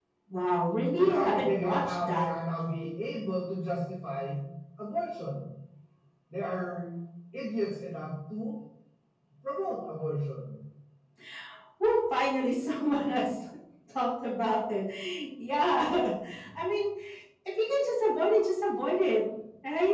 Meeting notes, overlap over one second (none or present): present